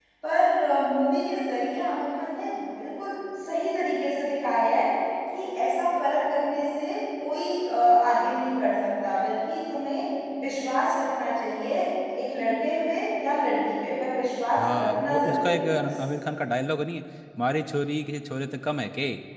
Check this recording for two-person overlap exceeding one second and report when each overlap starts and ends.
14.6-16.0

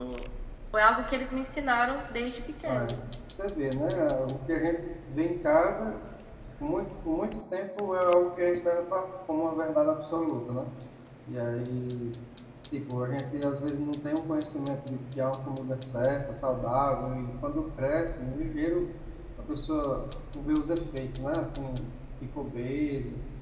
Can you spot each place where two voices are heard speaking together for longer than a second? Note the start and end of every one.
none

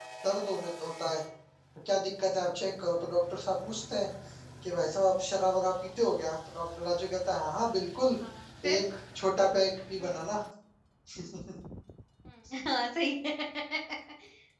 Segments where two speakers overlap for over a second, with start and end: none

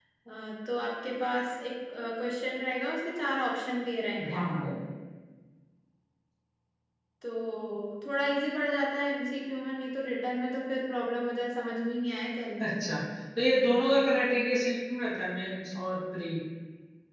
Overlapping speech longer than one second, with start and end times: none

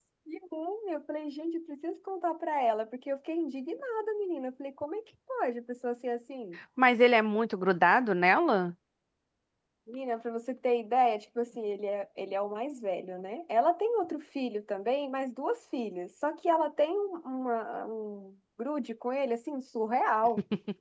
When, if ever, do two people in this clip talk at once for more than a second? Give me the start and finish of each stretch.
none

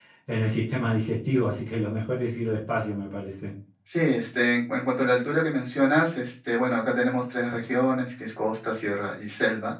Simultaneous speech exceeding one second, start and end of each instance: none

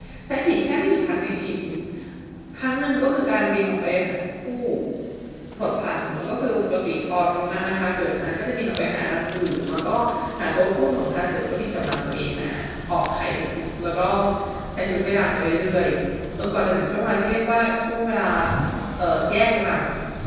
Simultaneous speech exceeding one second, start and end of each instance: none

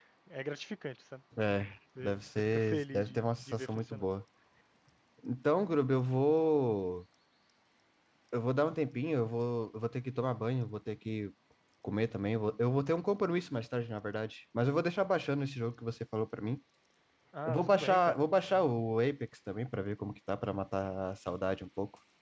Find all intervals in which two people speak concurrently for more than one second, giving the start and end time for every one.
2.0-4.0, 17.4-18.7

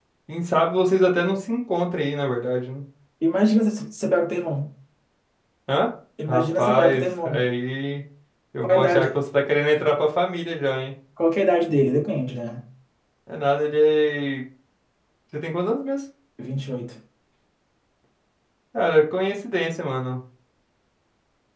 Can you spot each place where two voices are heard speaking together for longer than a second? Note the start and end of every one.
6.3-7.5

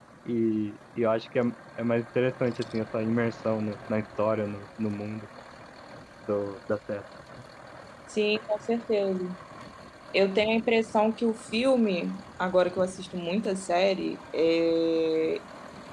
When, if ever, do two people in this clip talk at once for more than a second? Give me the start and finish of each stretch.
none

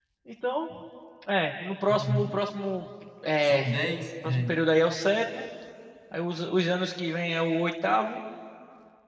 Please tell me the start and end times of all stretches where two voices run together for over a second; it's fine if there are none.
none

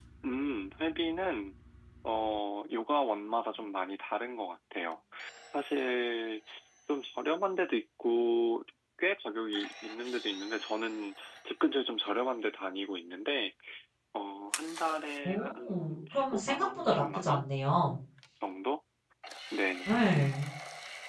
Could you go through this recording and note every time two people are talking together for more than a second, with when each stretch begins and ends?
15.2-17.4

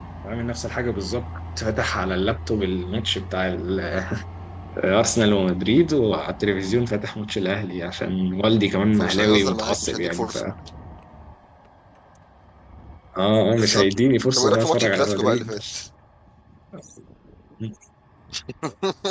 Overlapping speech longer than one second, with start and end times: 9.0-10.2, 14.4-15.6

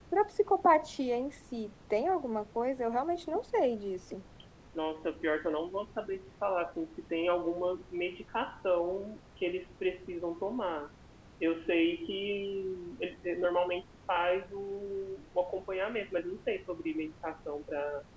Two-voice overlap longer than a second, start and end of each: none

